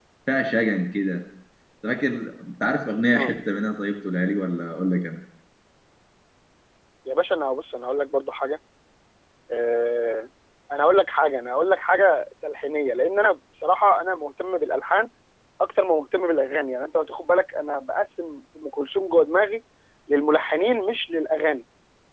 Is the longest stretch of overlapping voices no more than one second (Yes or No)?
Yes